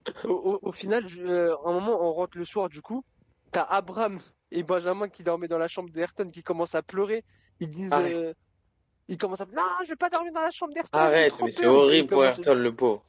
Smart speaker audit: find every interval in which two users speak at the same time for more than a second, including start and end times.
11.0-12.4

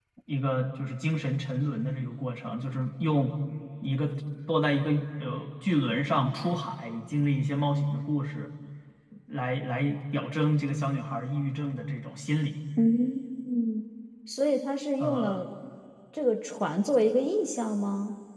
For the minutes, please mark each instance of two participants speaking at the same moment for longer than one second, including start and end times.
none

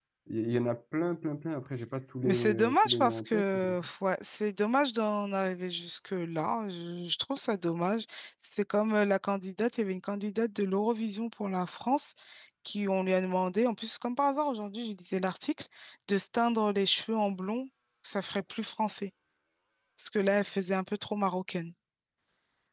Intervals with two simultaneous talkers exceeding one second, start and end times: 2.2-3.7

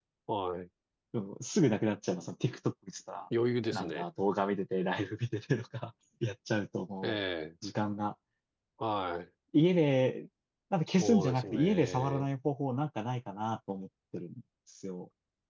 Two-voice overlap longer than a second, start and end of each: 10.9-12.3

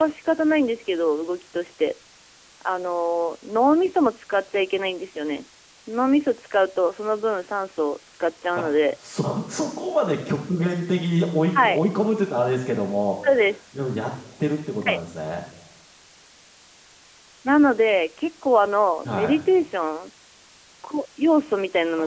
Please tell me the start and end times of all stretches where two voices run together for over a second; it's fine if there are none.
none

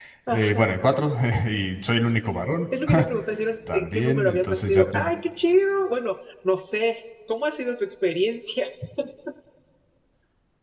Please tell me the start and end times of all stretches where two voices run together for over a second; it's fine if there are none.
3.7-5.1

